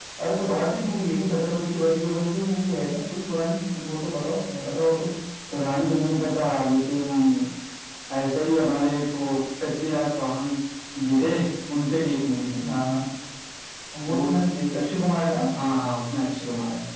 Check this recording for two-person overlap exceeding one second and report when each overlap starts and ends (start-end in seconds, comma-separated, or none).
none